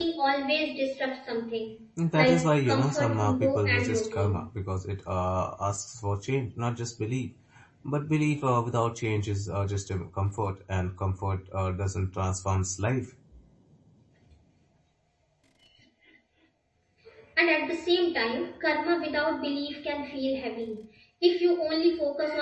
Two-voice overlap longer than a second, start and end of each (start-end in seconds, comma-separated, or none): 2.1-4.4